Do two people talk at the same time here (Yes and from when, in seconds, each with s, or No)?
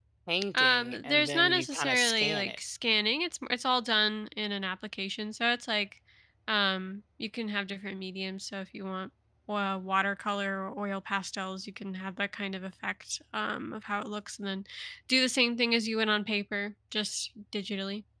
Yes, from 0.5 s